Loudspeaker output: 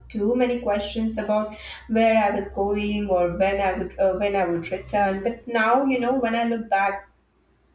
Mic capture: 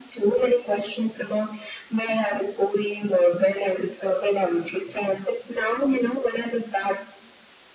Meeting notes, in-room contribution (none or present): none